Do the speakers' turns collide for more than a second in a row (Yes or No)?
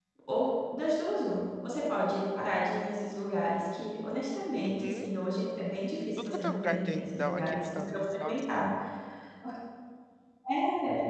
Yes